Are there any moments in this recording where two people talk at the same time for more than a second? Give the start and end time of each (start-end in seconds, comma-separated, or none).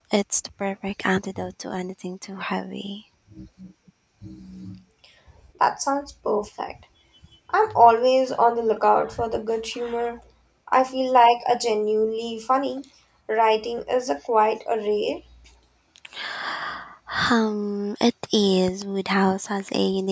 none